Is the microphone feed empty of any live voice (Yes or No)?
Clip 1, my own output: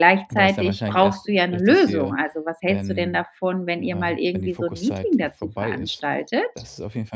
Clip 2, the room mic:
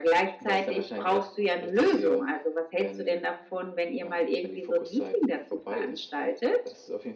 Yes